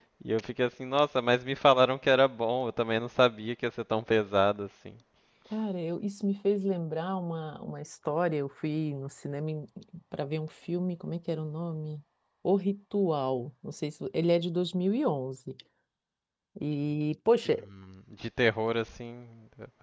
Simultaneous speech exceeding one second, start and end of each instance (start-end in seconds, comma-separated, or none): none